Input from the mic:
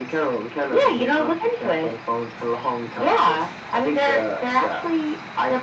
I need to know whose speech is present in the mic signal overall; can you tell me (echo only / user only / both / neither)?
echo only